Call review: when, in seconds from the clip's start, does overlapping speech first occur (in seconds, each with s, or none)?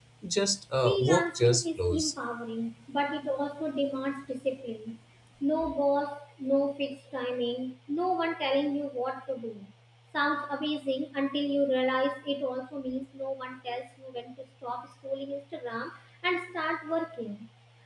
0.8 s